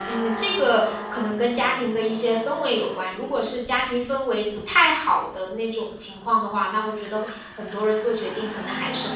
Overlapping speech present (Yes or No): No